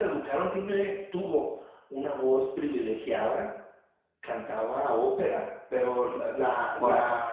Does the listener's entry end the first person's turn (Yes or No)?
No